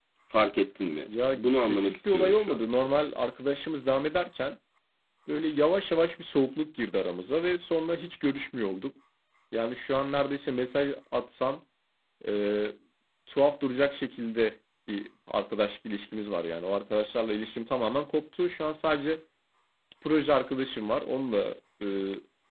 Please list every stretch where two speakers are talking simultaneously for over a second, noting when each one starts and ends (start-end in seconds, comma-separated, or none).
1.3-2.6